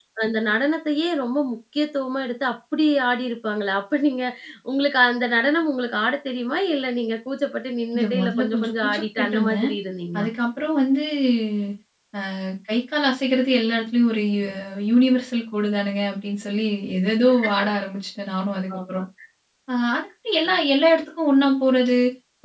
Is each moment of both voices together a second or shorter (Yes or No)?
No